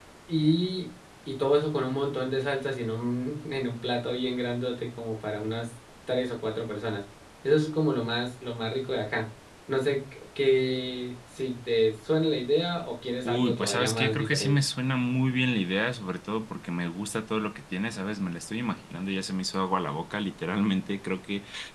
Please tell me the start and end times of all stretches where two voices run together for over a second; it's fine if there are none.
13.2-14.6

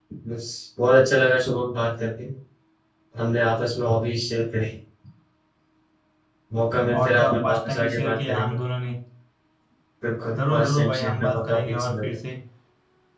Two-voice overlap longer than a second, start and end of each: 7.0-8.6, 10.5-12.1

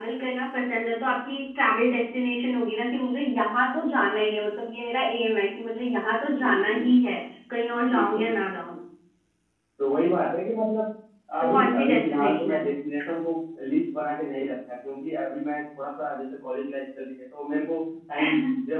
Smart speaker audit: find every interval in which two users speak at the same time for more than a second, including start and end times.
11.4-12.7

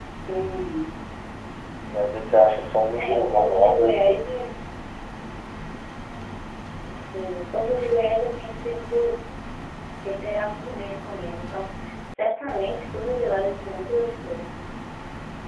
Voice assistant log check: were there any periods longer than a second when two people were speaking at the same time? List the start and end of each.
3.0-4.4

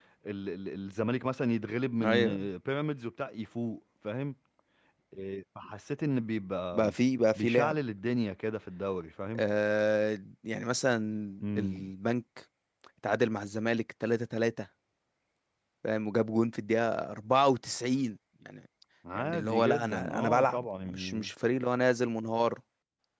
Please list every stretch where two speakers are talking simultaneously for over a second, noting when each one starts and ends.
19.1-21.3

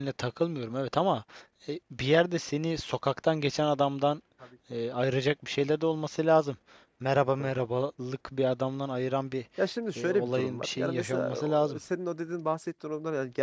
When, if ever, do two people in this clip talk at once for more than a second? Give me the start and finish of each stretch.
10.0-11.8

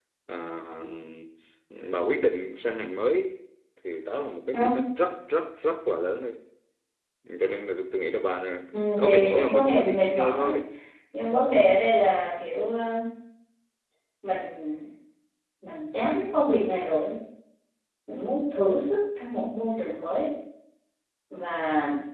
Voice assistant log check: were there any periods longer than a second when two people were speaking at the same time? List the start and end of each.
9.0-10.6

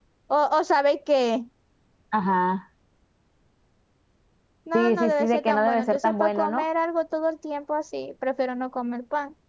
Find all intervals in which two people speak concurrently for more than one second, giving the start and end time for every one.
4.7-6.6

